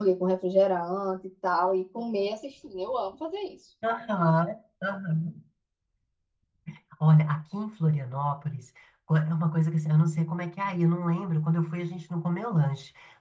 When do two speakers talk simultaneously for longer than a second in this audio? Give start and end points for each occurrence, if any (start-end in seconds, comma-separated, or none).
none